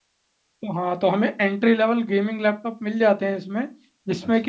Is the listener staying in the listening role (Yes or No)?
Yes